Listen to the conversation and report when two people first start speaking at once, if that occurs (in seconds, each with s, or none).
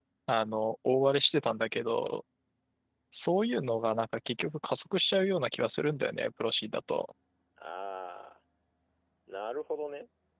none